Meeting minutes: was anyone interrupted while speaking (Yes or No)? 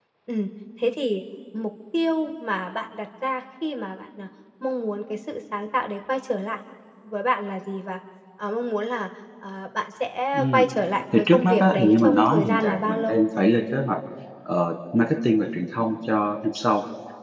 Yes